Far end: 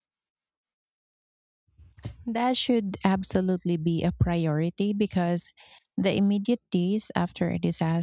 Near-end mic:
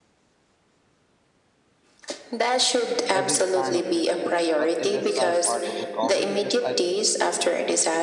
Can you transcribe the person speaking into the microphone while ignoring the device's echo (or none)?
isn't a sign of weakness, but it is a part of recovery, just like